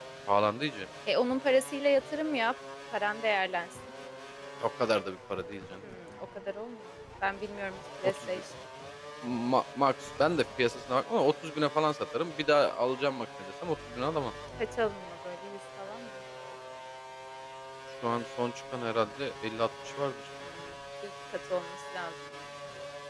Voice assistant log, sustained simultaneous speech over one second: none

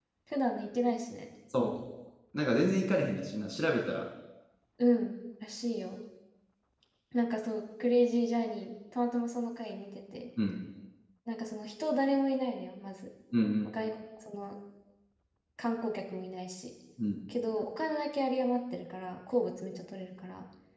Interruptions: none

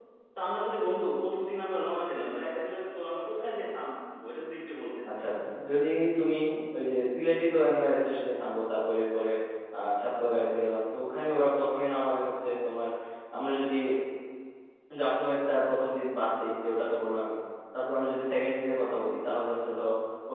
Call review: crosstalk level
none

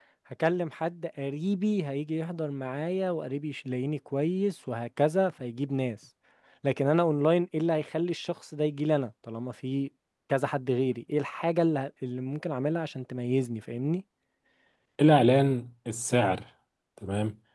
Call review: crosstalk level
none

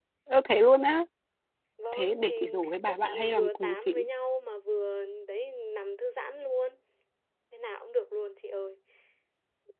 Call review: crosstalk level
present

